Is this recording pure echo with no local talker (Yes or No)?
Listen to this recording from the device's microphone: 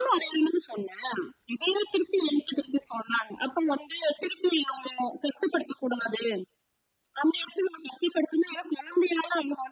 Yes